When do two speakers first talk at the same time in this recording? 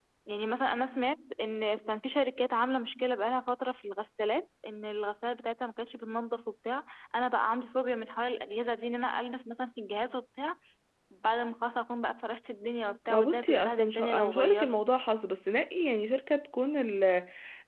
13.1 s

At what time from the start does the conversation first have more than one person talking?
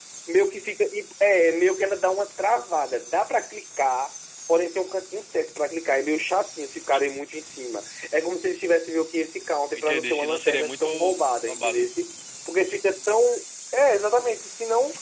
9.8 s

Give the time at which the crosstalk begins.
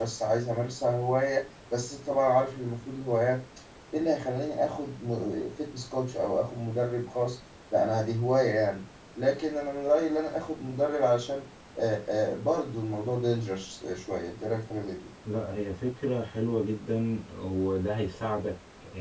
none

